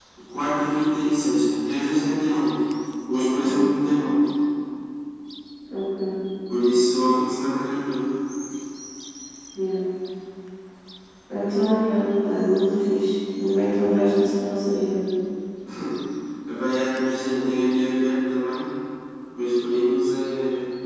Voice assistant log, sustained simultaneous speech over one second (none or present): none